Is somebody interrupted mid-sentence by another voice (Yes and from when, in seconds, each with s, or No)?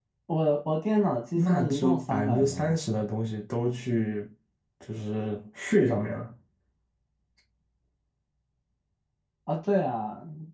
Yes, from 1.4 s